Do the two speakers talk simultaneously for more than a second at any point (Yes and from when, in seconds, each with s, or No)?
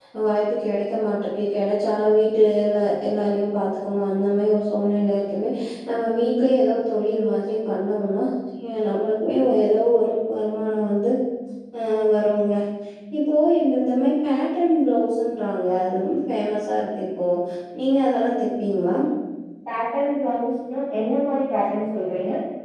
No